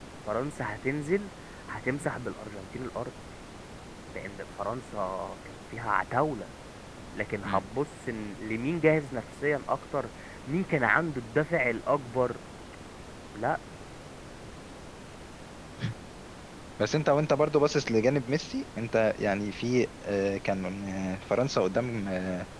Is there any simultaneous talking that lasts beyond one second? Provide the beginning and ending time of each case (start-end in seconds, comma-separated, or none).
none